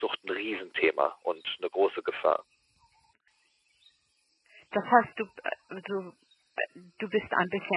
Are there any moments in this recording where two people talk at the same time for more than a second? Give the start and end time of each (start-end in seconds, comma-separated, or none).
none